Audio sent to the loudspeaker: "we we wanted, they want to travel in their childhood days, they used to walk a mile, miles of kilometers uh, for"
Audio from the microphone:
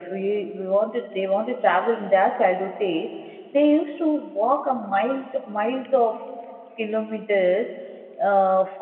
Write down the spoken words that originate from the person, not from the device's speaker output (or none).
none